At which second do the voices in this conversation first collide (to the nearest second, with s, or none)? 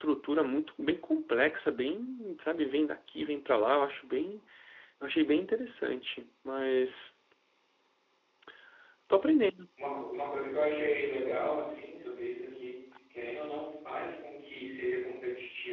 none